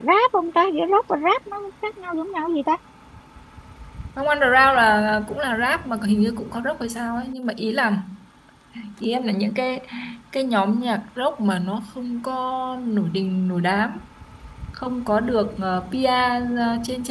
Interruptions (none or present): none